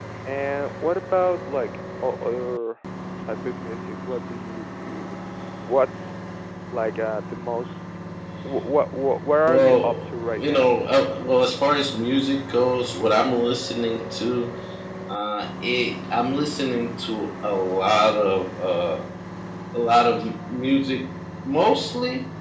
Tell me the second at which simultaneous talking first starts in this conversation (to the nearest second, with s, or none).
9 s